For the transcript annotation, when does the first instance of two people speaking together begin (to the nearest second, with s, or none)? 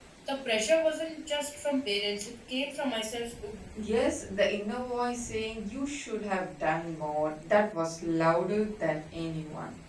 none